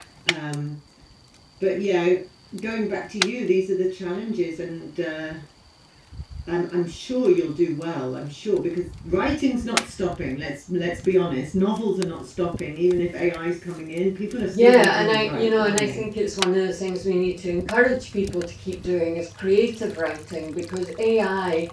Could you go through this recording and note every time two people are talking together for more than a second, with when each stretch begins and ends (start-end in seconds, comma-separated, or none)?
14.5-16.0